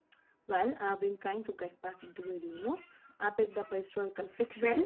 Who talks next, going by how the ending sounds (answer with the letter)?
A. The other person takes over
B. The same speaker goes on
B